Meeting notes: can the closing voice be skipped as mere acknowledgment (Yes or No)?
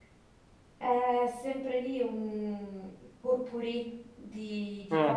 Yes